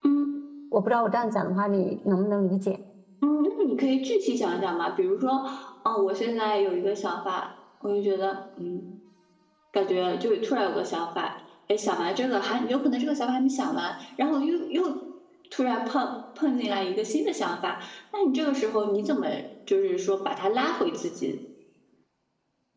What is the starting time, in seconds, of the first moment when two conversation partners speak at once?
none

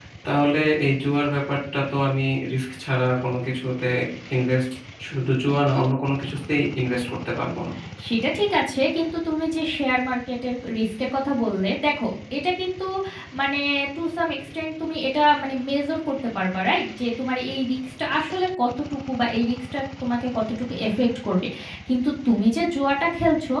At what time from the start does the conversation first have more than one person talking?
none

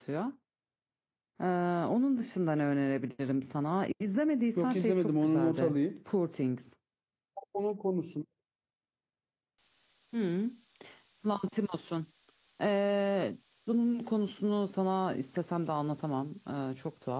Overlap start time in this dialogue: 4.6 s

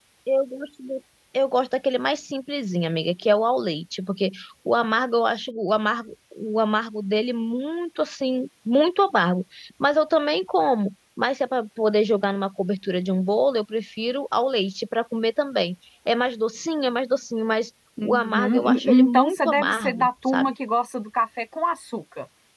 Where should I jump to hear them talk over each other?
18.0 s

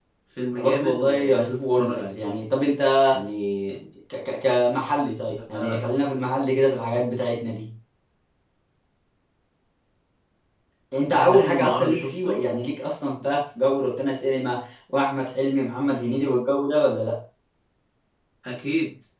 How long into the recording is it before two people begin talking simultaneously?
0.6 s

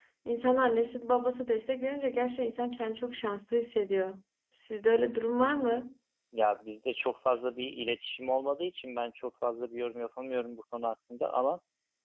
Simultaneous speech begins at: none

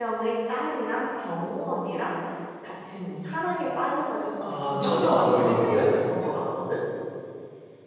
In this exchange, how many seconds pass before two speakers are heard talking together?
4.4 s

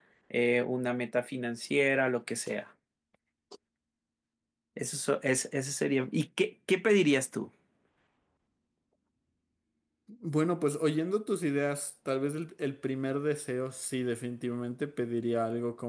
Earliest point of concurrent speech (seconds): none

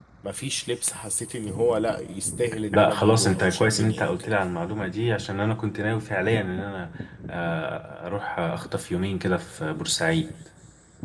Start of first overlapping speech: 2.7 s

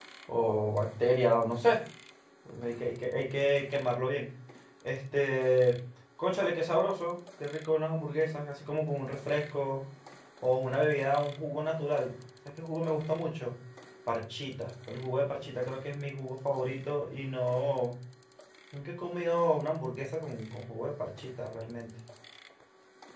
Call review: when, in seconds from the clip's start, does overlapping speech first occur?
none

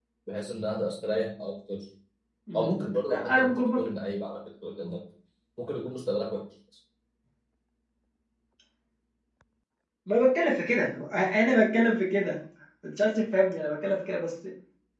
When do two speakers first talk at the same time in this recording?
2.5 s

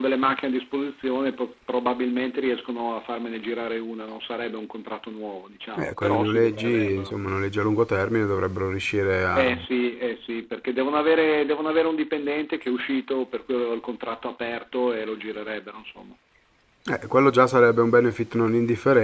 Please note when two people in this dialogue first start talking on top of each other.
5.8 s

